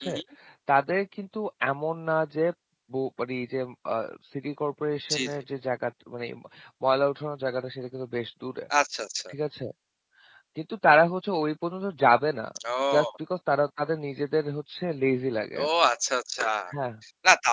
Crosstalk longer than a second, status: none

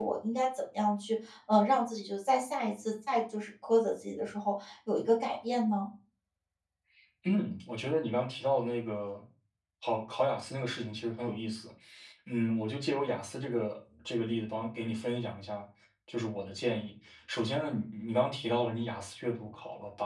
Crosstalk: none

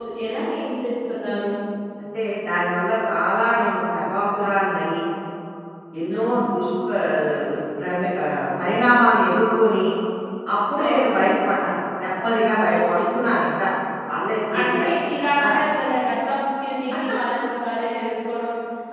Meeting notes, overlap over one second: none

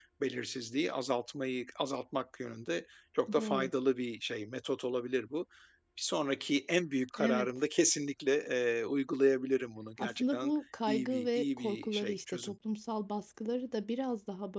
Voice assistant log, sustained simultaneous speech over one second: present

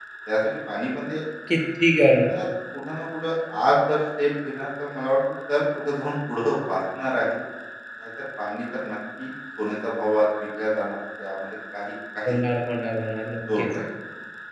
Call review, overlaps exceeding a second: none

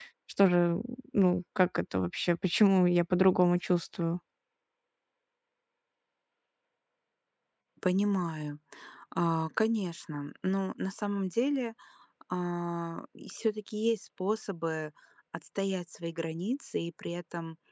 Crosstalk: none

